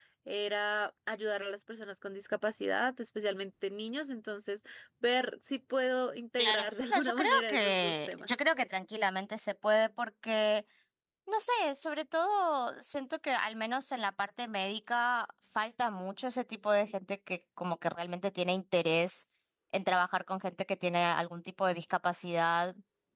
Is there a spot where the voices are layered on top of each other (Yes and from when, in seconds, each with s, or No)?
Yes, from 6.4 s